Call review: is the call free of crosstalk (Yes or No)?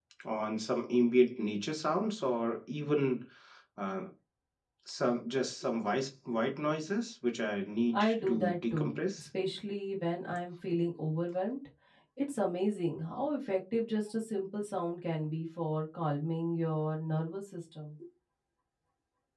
No